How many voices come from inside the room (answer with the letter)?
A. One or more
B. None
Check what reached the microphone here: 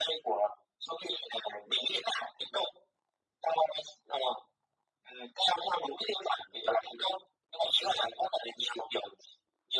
B